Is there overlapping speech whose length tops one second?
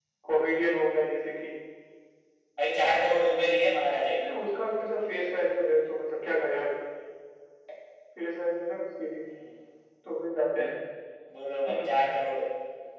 No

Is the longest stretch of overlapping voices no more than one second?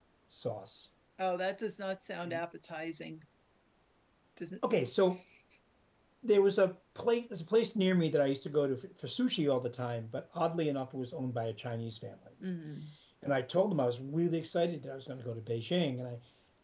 Yes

